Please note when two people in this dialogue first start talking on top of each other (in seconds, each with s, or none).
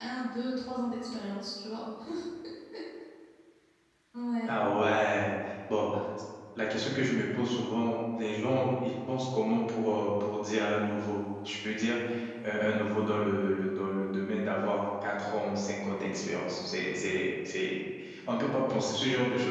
none